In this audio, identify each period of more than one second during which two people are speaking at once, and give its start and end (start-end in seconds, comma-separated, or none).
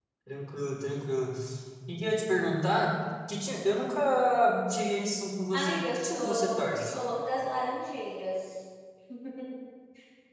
5.5-6.9